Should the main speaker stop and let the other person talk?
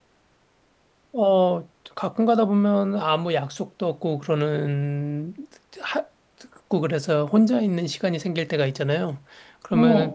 No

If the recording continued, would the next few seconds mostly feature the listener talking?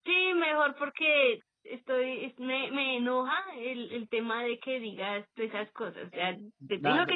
Yes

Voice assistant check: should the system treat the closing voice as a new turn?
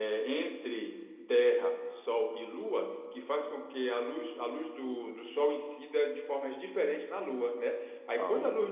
No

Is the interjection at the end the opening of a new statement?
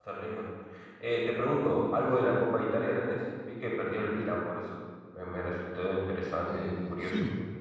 Yes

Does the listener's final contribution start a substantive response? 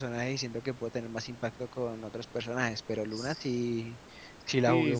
Yes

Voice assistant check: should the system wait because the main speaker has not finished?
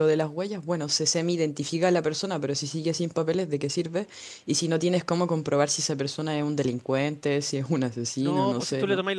No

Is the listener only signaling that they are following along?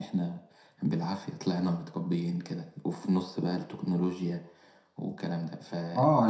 No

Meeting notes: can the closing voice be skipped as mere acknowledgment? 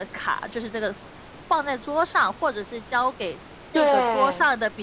Yes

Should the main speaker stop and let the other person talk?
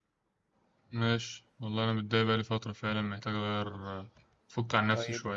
Yes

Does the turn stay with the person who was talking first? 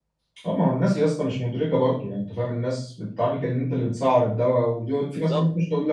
Yes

